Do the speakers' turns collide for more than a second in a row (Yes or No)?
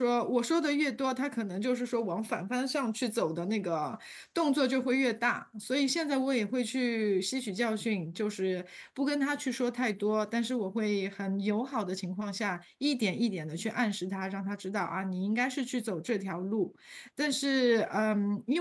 No